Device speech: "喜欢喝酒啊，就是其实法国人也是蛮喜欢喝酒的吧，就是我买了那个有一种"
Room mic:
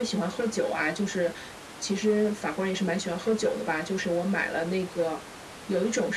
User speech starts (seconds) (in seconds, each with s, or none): none